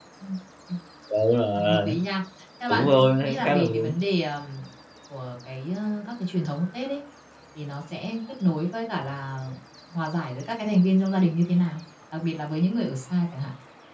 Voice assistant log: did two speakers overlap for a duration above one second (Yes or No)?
Yes